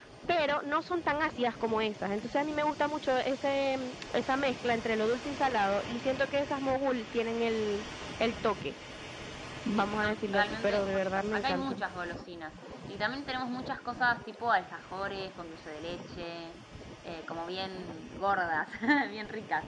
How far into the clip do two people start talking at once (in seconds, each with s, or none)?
9.8 s